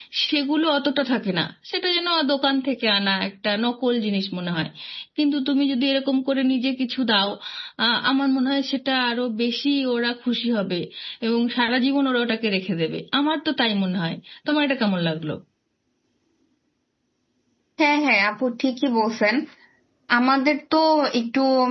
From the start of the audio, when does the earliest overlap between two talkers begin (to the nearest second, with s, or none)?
none